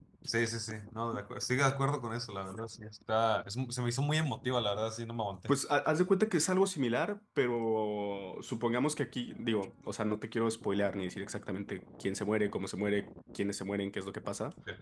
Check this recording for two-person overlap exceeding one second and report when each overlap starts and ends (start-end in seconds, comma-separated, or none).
none